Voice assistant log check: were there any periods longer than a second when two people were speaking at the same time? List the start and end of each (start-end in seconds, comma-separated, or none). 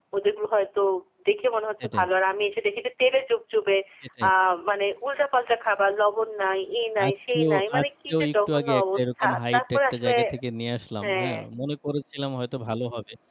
7.0-10.1